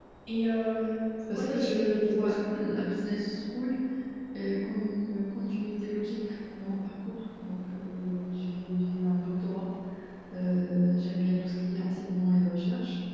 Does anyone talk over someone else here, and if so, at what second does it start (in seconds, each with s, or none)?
1.3 s